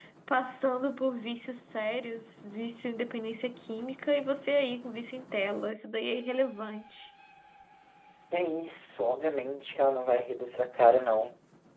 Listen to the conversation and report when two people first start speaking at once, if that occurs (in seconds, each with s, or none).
none